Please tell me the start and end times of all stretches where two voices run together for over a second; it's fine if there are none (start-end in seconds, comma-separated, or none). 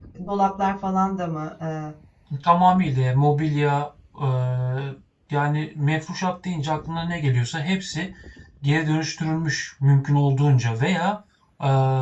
none